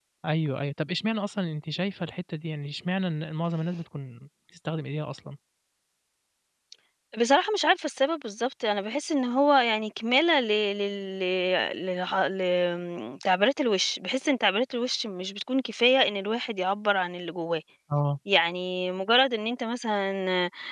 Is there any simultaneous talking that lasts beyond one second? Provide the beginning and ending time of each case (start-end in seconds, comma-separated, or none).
none